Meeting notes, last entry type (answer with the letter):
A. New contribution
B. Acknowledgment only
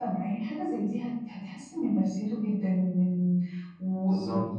B